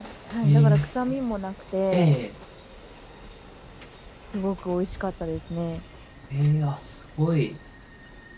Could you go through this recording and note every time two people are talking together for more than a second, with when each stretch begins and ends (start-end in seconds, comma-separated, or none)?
none